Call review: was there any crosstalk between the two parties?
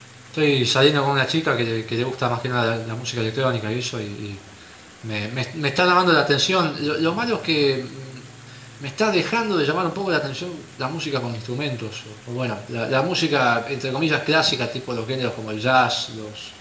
No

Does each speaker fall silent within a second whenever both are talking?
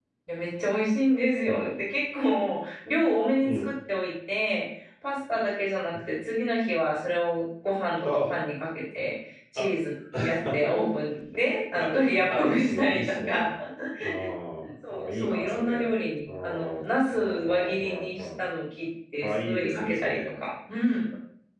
No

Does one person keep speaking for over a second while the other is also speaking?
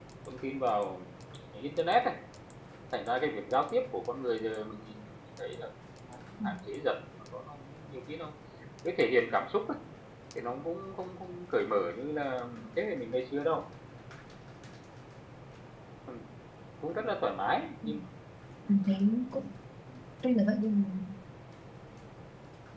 No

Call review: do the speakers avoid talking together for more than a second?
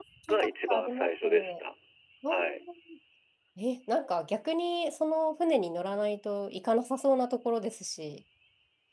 No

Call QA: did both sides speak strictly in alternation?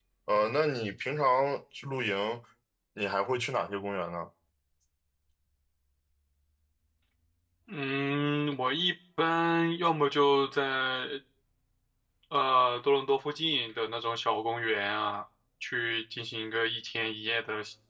Yes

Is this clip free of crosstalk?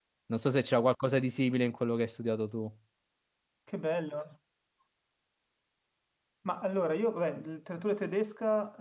Yes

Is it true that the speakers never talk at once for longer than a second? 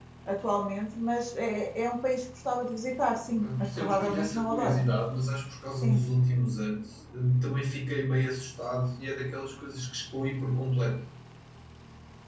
No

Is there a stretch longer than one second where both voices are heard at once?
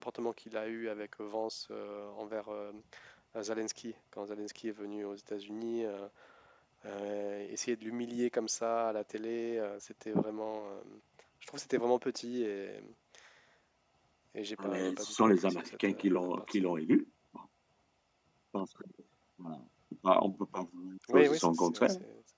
Yes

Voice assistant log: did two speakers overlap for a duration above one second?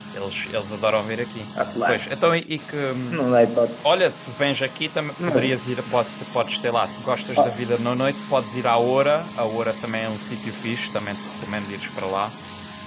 No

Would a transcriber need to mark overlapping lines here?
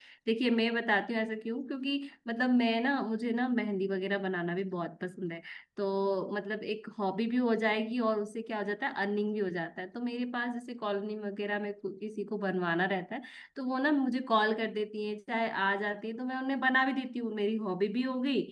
No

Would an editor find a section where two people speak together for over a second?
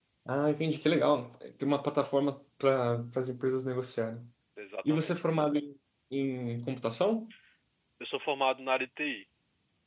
No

